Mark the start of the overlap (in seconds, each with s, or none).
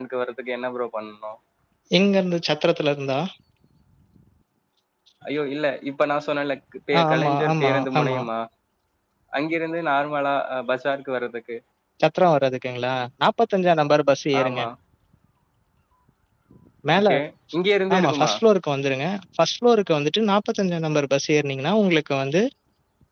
7.0 s